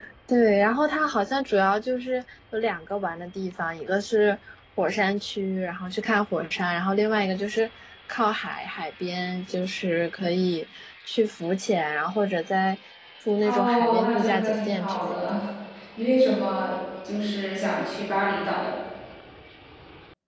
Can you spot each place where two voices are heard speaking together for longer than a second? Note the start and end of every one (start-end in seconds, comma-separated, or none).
13.4-15.2